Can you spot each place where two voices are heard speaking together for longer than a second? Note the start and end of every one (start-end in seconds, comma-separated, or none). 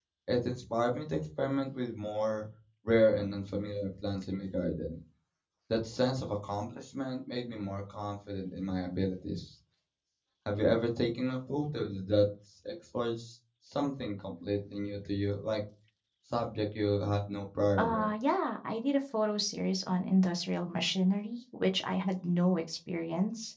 none